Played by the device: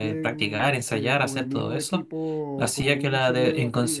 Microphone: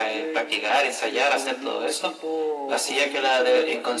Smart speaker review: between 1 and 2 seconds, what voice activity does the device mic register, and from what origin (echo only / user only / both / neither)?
echo only